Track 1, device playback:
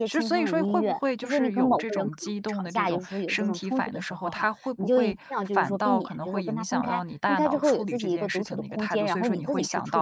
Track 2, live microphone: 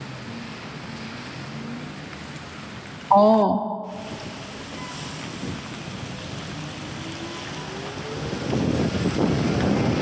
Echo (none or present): none